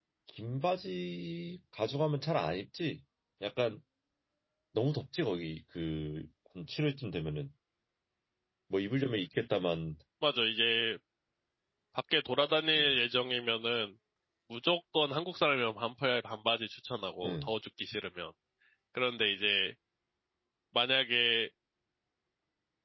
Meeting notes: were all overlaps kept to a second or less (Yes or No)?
Yes